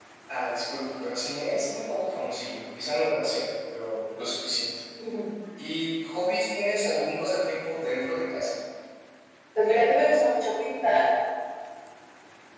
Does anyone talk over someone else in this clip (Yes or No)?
No